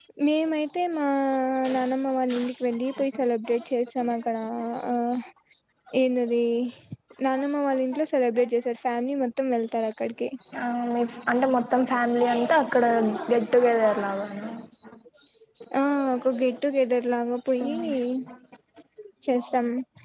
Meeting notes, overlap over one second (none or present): none